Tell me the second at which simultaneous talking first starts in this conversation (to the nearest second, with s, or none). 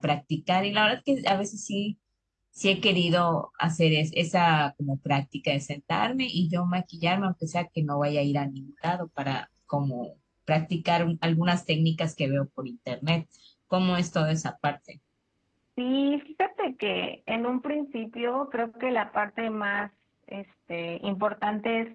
none